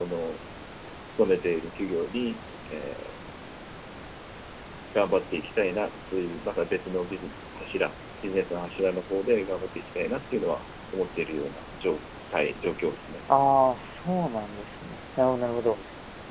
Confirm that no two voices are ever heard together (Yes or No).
Yes